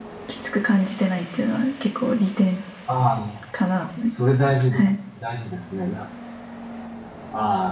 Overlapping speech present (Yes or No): No